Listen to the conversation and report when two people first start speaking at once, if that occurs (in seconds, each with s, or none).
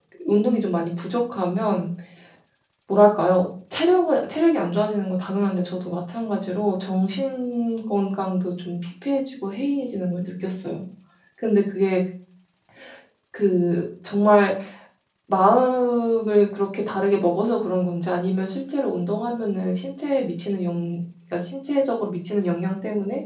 none